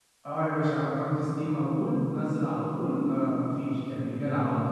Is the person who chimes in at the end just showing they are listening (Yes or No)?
No